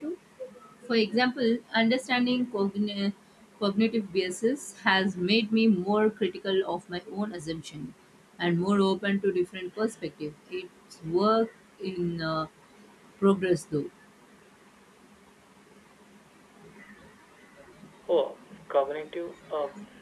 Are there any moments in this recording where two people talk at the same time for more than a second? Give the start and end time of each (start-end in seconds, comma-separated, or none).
none